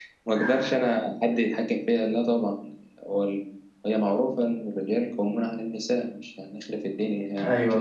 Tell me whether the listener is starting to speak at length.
Yes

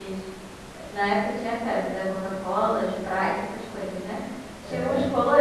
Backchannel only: Yes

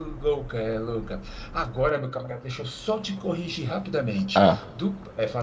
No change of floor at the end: Yes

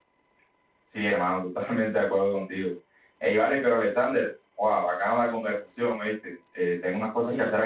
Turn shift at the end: No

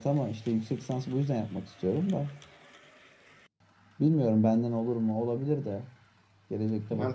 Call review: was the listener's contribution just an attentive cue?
No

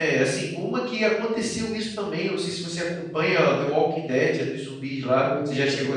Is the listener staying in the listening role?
No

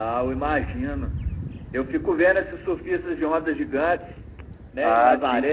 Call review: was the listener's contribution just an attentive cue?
No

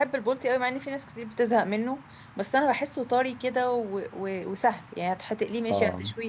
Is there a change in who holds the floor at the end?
No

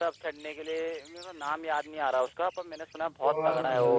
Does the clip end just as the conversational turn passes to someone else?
Yes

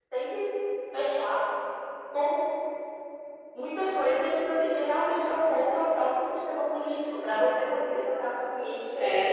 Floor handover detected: Yes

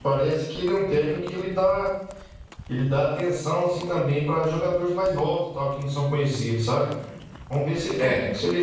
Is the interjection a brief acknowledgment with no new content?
Yes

